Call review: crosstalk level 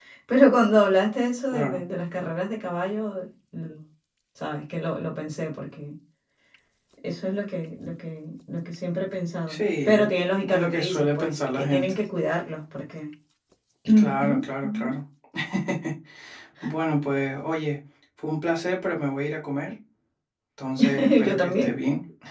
present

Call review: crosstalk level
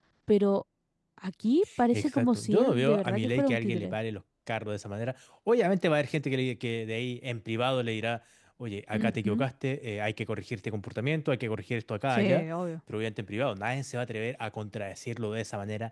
present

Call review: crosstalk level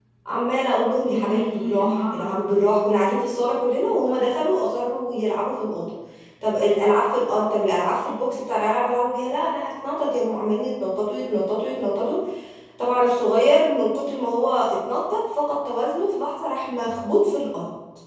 present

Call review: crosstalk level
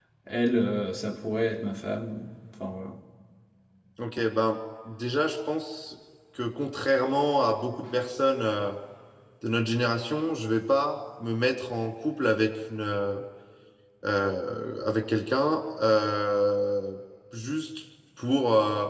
none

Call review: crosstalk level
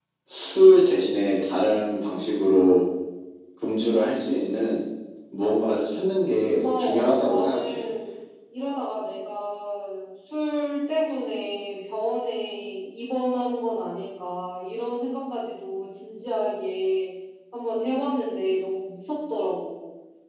present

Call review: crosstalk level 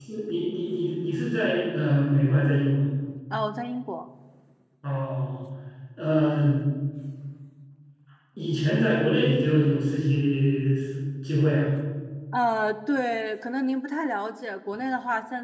none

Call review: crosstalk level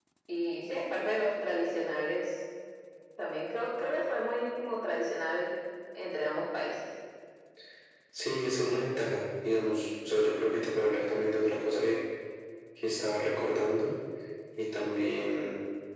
none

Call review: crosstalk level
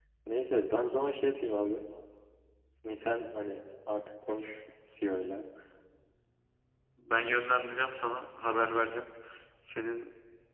none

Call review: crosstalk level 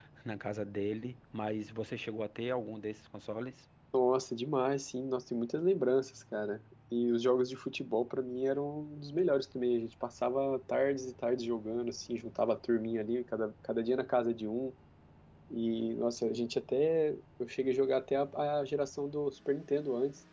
none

